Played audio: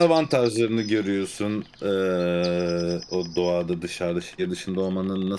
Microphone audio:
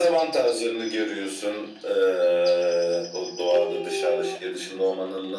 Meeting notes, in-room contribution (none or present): present